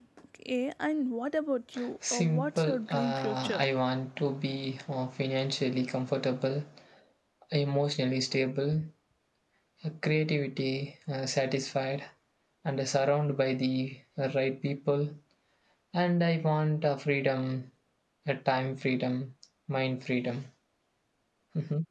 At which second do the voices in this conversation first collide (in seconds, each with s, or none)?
2.1 s